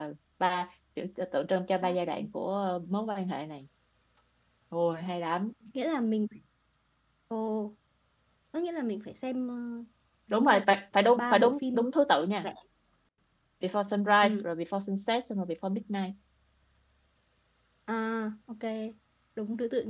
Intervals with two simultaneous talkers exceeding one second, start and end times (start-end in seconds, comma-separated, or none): 10.3-11.8